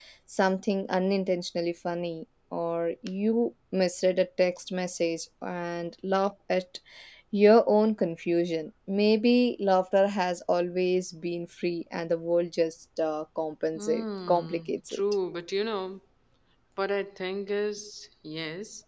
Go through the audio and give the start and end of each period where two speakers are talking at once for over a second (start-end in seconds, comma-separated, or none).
13.8-15.0